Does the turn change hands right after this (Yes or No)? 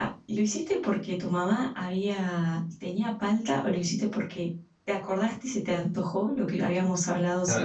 Yes